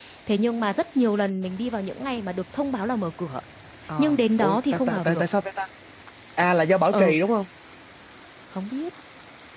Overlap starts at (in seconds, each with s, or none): 4.0 s